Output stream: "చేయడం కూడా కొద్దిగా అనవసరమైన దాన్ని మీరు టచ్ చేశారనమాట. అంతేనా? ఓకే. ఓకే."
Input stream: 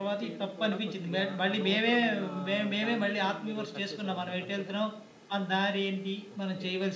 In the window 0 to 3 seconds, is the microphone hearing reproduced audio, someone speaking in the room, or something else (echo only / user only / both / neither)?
both